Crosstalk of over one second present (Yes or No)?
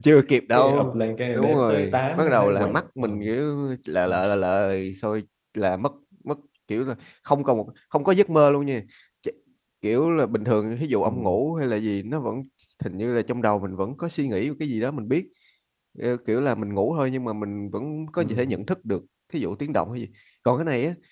Yes